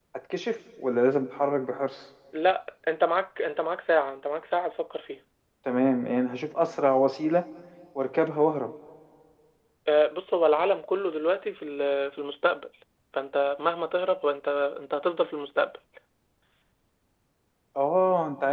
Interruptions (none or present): none